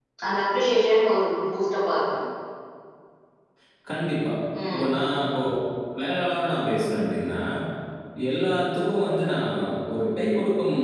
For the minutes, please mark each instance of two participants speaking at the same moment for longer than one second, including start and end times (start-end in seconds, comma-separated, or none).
none